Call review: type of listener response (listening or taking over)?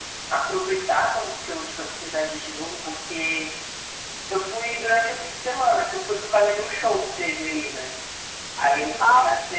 listening